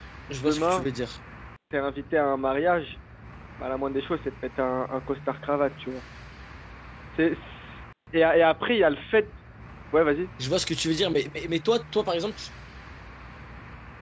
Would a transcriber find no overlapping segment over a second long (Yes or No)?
Yes